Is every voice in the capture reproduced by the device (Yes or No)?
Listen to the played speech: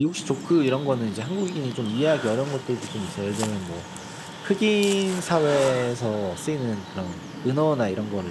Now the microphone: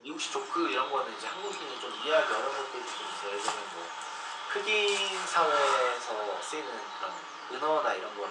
Yes